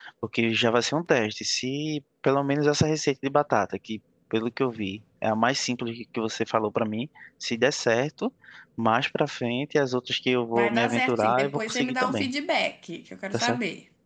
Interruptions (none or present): present